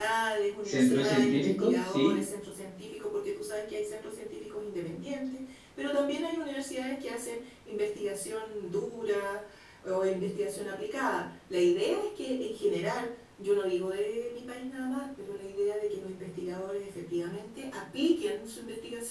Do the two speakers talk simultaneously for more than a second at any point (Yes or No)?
Yes